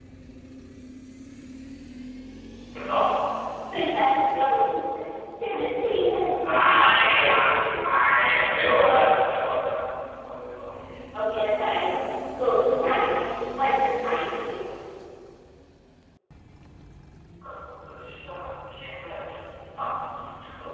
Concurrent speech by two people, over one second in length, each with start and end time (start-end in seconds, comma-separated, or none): 6.4-8.1